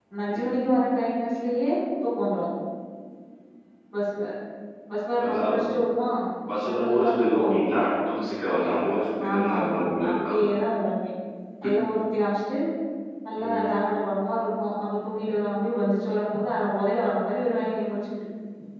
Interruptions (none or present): present